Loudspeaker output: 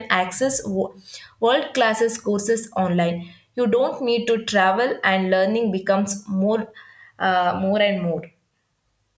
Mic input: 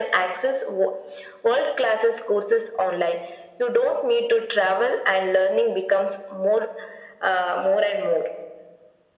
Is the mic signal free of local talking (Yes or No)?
Yes